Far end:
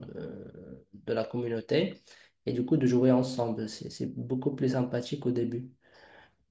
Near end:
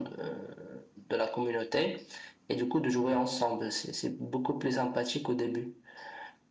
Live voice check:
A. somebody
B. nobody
B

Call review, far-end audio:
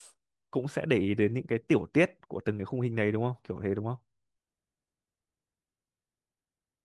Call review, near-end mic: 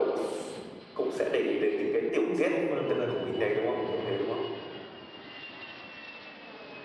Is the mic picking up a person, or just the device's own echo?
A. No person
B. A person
B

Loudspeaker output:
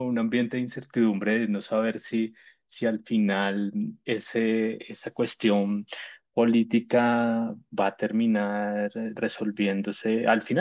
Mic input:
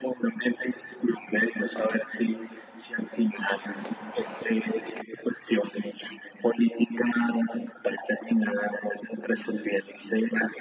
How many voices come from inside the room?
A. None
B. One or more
A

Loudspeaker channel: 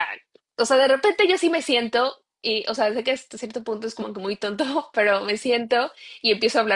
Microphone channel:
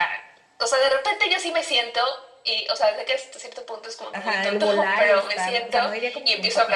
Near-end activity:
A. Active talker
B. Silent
A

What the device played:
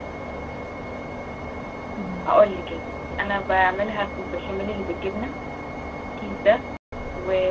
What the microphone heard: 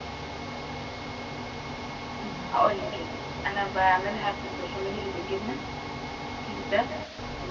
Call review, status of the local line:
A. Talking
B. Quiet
B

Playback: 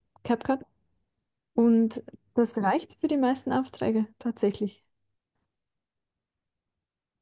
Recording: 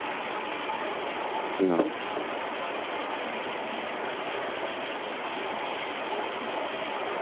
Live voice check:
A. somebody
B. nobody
A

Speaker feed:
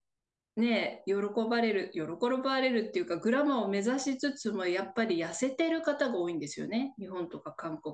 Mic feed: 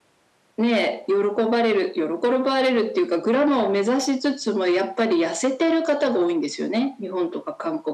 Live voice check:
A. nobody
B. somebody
A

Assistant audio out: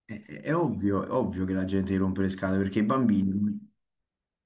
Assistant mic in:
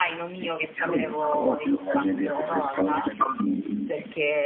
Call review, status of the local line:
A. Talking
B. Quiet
A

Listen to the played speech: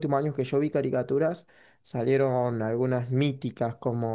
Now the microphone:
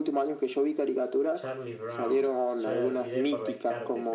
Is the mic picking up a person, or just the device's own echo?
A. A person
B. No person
A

